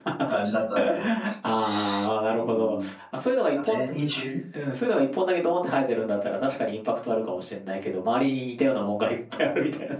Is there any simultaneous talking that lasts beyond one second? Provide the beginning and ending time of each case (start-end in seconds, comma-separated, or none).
none